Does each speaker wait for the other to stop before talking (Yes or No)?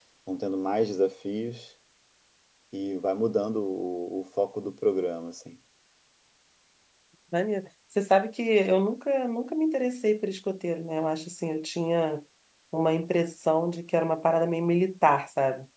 Yes